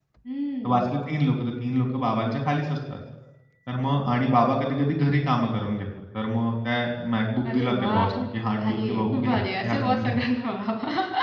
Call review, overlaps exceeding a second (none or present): present